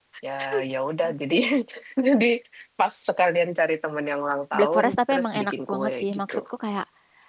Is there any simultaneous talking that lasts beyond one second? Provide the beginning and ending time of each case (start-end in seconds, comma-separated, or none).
4.6-6.4